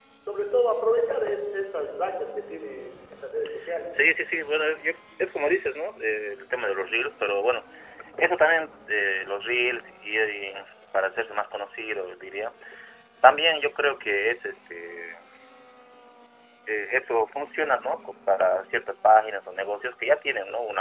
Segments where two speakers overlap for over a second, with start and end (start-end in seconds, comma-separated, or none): none